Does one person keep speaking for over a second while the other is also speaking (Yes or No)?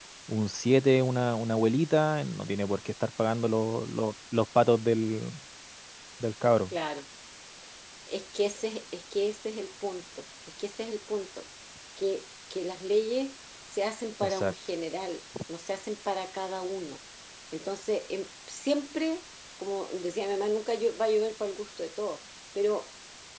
No